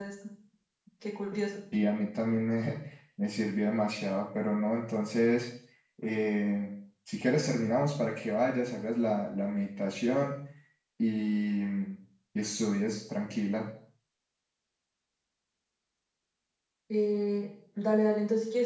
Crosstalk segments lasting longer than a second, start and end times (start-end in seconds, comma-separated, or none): none